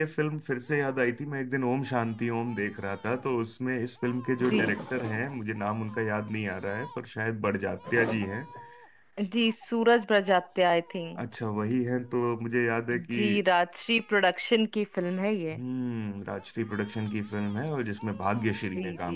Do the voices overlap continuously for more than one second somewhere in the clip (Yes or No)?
No